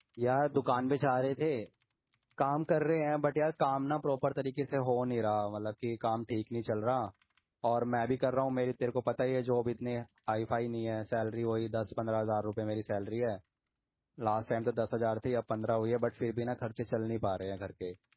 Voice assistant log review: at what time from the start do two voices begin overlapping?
none

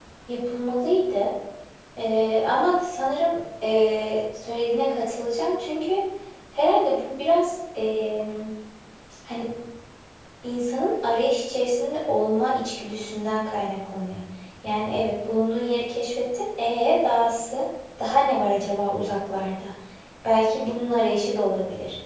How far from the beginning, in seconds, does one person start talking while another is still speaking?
none

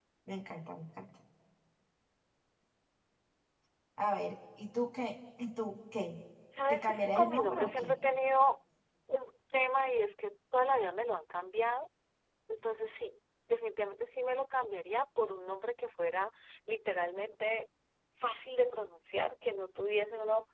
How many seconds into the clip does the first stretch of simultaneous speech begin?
6.7 s

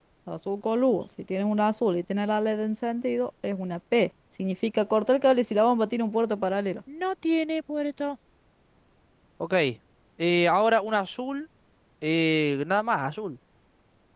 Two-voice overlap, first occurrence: none

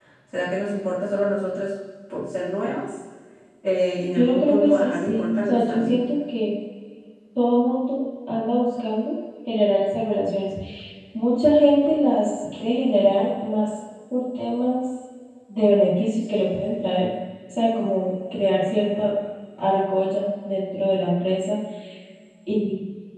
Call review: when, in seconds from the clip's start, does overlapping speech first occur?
4.2 s

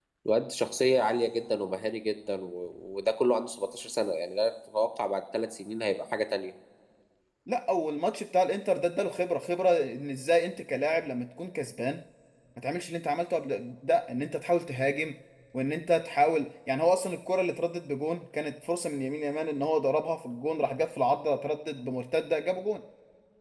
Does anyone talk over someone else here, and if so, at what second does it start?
none

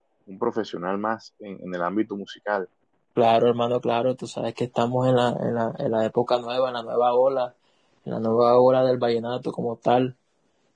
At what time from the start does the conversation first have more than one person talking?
none

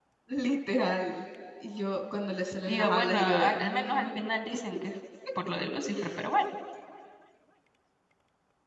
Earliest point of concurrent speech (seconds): 2.7 s

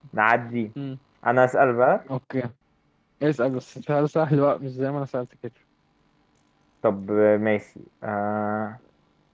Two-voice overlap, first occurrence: none

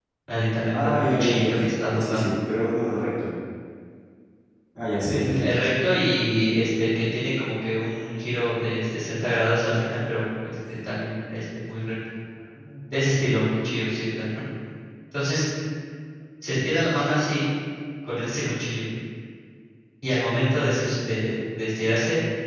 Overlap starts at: 0.7 s

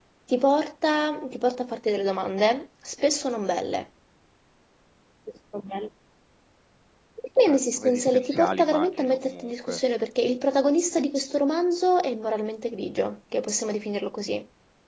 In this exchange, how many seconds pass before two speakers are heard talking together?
7.4 s

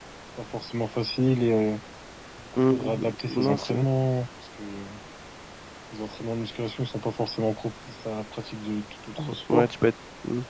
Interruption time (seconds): 2.6 s

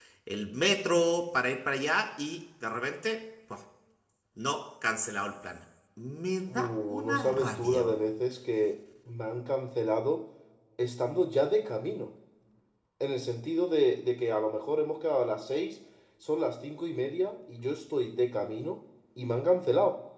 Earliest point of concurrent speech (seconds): 6.5 s

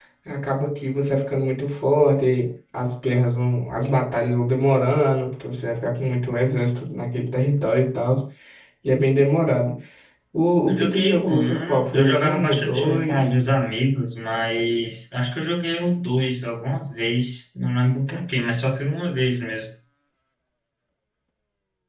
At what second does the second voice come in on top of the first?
10.7 s

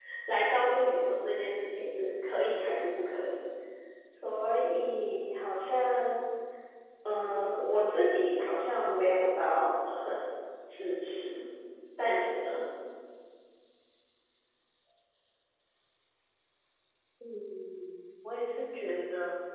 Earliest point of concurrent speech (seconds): none

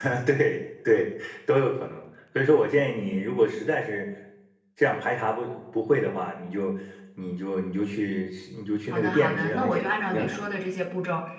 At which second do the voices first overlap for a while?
8.9 s

